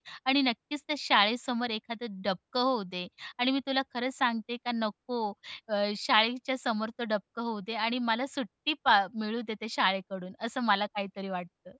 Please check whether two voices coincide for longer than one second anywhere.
No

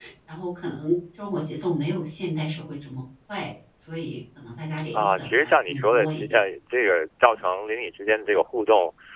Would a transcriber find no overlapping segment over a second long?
No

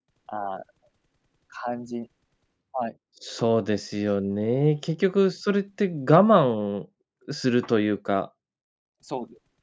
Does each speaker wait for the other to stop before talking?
Yes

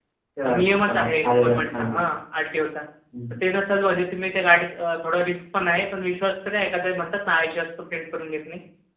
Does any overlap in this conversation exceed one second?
Yes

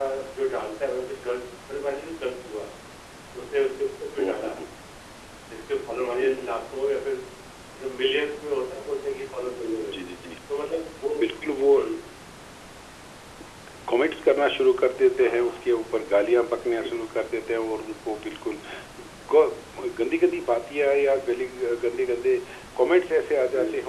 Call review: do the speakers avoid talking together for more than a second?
Yes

